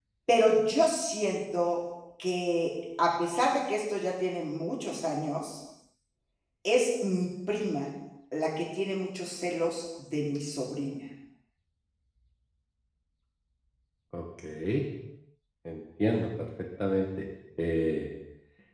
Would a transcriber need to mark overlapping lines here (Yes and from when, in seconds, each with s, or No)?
No